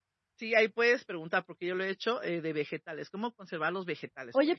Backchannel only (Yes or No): No